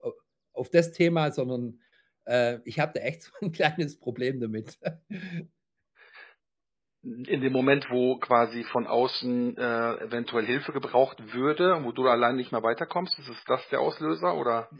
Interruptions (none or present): none